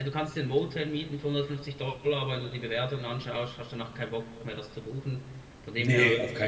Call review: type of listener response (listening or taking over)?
taking over